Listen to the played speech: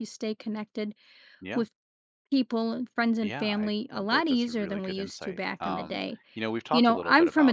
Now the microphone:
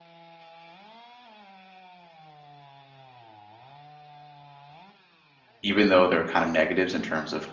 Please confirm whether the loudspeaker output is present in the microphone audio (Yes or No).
No